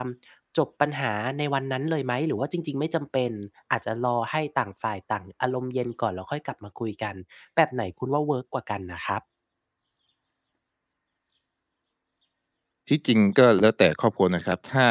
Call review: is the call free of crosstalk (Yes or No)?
Yes